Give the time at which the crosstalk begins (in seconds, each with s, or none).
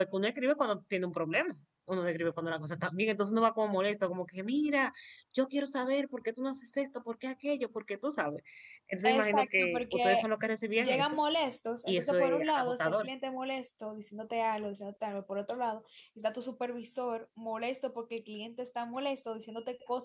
9.0 s